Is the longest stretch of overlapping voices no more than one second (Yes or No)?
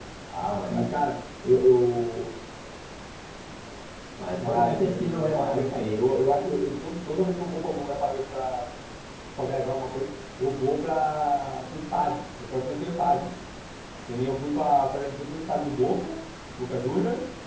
No